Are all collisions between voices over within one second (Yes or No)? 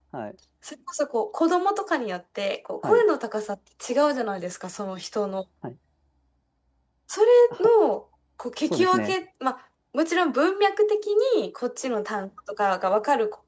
Yes